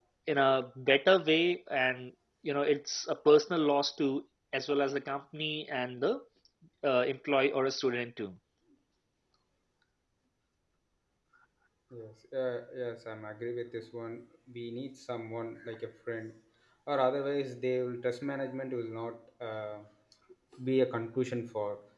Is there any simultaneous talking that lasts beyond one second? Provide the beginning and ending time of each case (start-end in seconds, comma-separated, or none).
none